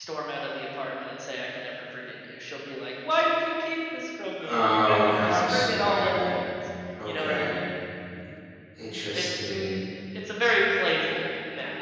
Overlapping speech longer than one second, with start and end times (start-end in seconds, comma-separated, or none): 4.5-6.1